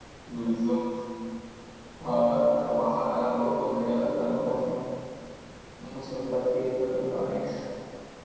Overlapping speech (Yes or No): Yes